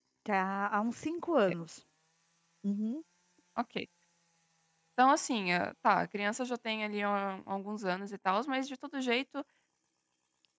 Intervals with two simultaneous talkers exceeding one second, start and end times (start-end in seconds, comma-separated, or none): none